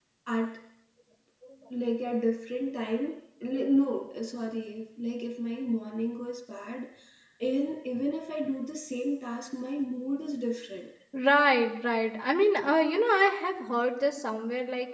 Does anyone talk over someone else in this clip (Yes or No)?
No